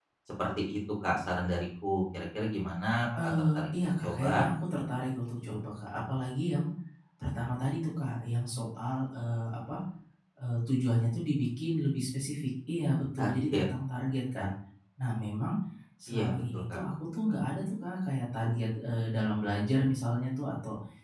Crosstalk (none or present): present